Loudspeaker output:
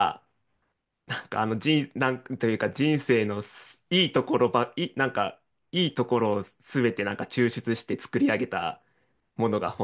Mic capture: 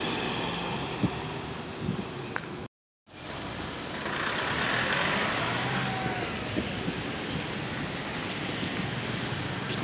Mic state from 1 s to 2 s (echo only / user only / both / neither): neither